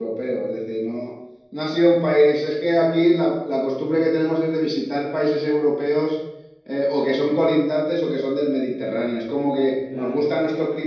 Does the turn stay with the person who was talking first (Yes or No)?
Yes